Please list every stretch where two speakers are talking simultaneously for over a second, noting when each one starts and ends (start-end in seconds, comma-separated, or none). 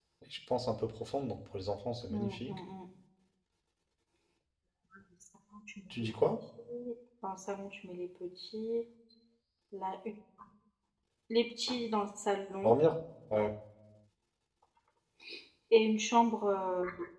none